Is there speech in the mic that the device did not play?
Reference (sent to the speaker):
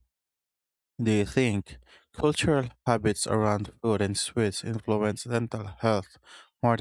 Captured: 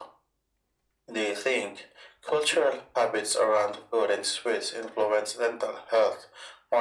No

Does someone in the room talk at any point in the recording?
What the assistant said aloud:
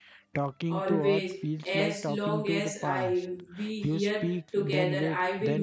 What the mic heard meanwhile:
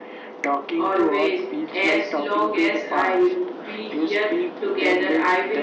No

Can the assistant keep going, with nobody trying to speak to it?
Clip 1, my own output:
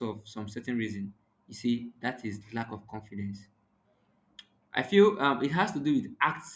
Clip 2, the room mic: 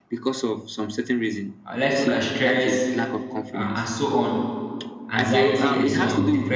No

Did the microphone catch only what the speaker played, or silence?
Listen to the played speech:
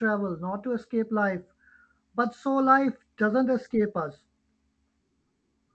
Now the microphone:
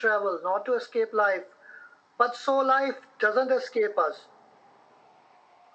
Yes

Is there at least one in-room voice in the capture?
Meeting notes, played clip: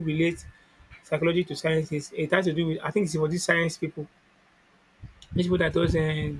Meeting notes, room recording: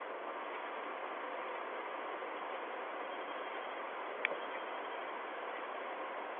No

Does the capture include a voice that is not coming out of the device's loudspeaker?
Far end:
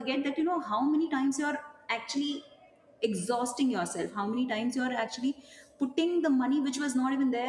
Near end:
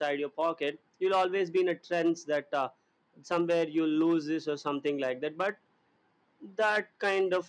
Yes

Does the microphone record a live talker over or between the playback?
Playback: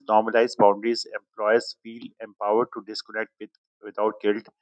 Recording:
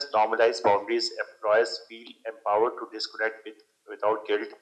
No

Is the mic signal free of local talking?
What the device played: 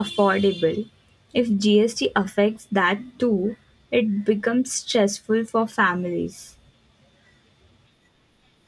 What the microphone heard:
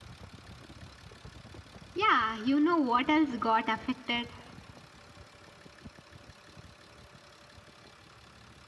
No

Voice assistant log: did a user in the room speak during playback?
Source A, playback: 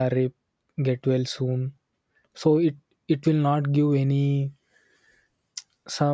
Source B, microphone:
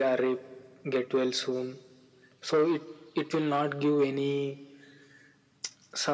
No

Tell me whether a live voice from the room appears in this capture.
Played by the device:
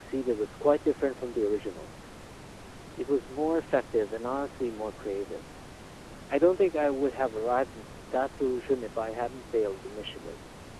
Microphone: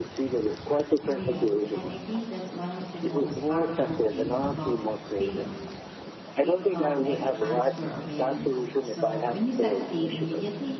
Yes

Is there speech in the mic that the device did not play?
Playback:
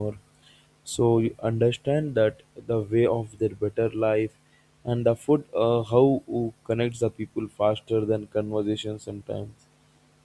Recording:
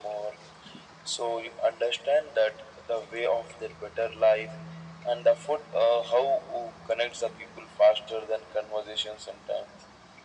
No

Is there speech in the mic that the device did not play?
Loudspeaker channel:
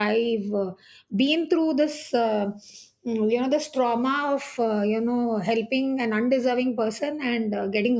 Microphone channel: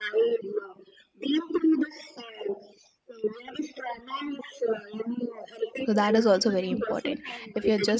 Yes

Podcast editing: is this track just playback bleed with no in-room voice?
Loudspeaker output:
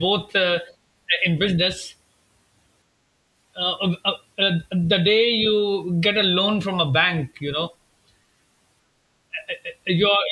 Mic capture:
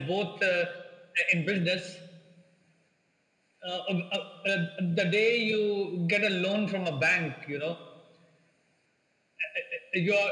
Yes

